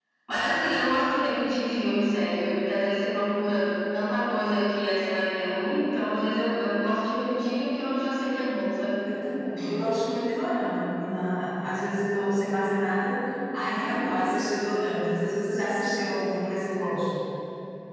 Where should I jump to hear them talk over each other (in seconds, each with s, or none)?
none